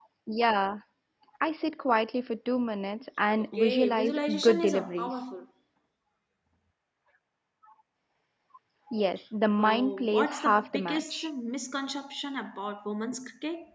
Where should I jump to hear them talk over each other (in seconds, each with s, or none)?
3.4 s